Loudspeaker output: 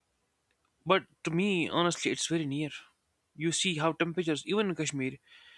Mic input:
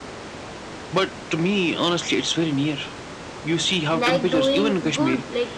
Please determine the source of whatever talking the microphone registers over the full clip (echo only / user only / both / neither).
both